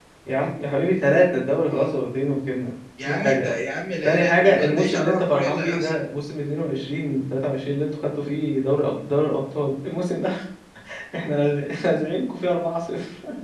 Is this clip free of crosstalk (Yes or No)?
No